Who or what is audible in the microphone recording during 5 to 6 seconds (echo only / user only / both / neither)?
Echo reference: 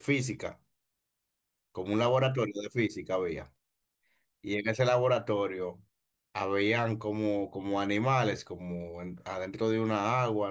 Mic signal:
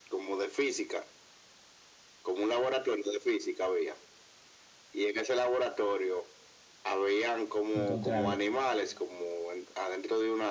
echo only